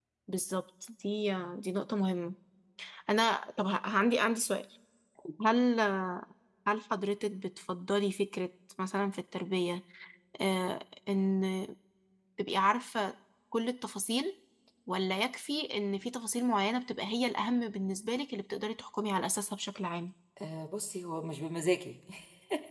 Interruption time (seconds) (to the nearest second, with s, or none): none